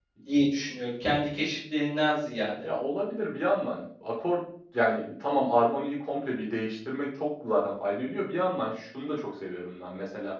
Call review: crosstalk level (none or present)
none